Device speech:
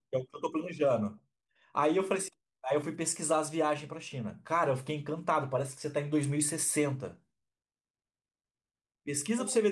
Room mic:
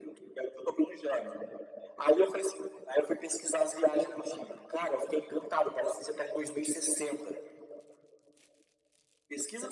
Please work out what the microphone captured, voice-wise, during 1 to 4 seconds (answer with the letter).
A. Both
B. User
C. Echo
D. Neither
C